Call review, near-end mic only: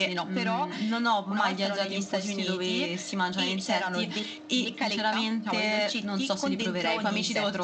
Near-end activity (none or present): present